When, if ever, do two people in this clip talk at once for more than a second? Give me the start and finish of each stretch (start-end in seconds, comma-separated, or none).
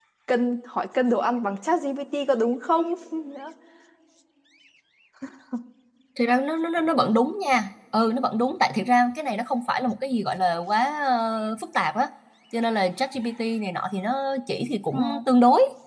none